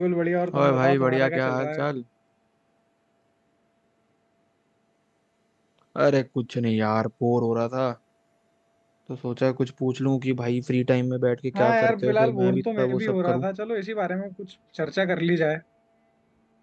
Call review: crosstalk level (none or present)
present